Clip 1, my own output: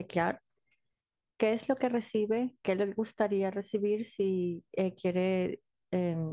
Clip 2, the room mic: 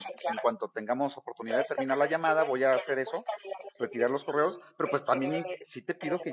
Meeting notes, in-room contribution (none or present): present